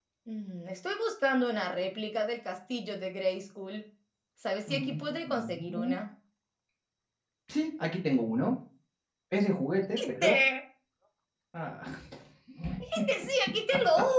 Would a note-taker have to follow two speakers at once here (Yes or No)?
Yes